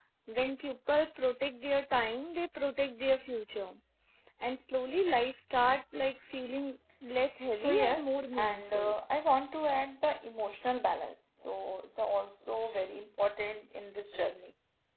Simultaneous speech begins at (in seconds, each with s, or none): 7.5 s